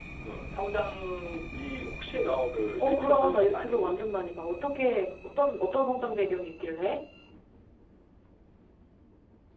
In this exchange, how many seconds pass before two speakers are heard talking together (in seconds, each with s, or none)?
2.8 s